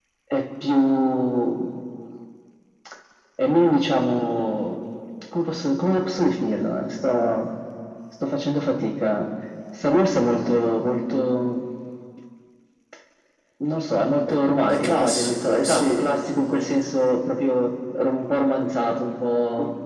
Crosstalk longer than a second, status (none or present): present